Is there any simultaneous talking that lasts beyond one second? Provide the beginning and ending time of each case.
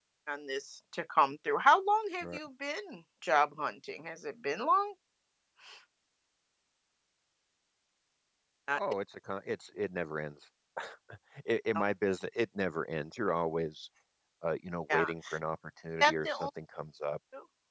none

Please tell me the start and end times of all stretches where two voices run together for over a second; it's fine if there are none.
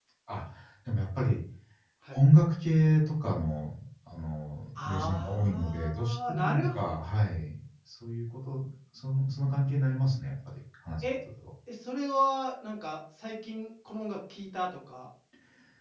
4.8-6.8

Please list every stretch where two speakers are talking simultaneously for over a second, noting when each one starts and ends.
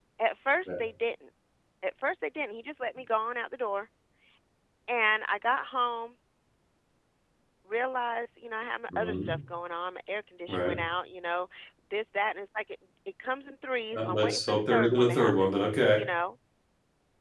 13.9-15.5

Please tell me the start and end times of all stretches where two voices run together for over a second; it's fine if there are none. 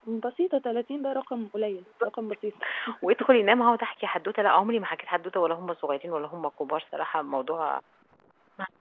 none

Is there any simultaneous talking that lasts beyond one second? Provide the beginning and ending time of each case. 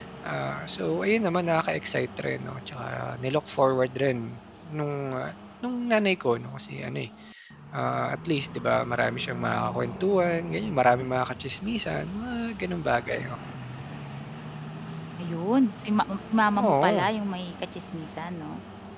none

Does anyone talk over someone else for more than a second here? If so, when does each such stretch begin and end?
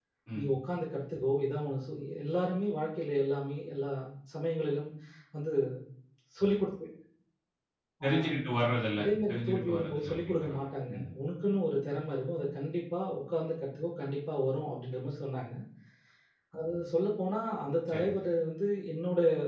9.0-11.0

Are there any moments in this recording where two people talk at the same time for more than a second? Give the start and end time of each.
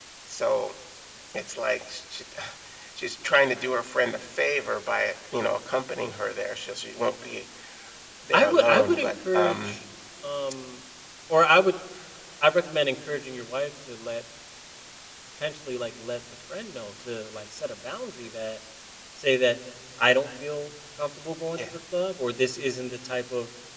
8.3-9.8

